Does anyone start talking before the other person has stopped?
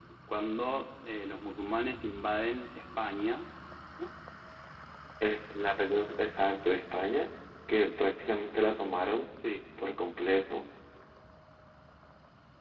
No

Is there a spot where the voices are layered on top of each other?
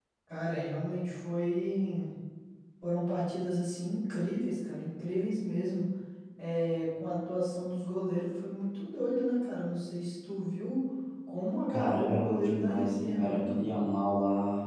Yes, from 11.7 s

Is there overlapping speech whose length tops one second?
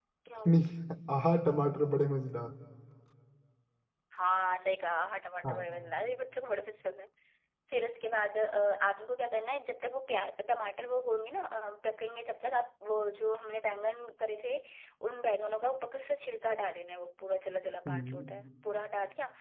No

